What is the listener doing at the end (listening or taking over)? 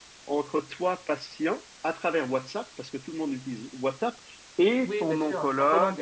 taking over